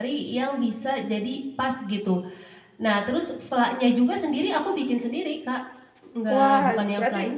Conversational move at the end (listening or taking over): taking over